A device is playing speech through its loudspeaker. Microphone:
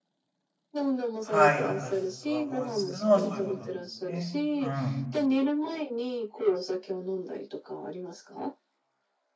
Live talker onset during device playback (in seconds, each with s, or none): 1.2 s